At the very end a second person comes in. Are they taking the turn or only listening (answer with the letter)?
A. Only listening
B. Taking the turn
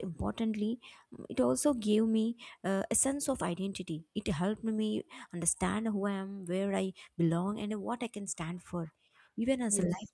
A